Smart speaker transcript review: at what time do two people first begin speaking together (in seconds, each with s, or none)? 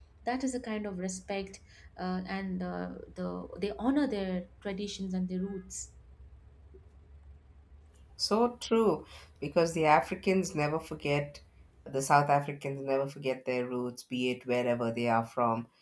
none